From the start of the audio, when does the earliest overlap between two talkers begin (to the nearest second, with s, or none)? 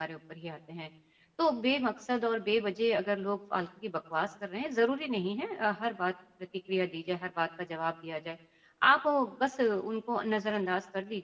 none